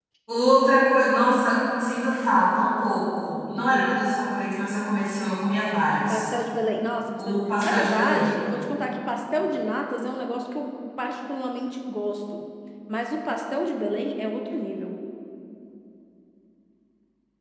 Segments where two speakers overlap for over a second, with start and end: 7.2-8.4

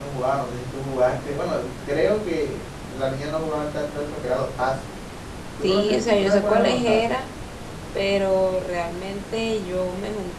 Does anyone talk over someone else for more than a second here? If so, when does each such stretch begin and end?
5.6-7.1

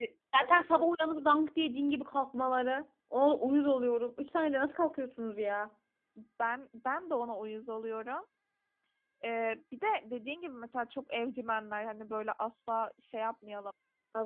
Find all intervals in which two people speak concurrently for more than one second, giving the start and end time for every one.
none

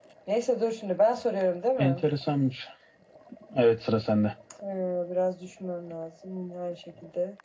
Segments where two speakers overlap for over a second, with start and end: none

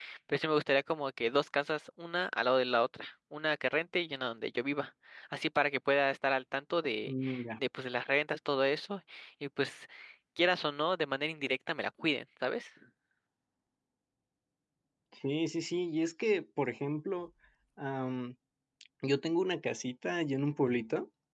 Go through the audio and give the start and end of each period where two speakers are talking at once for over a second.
none

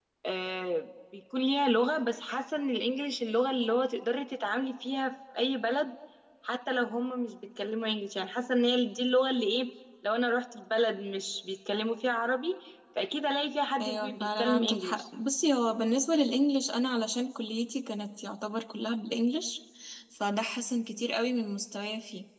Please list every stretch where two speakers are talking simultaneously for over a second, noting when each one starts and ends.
13.8-15.0

